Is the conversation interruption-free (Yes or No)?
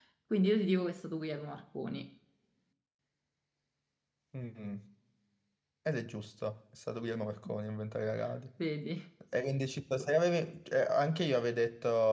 Yes